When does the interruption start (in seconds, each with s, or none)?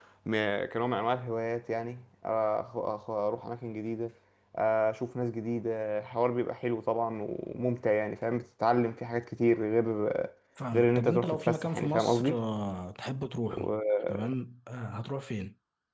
10.7 s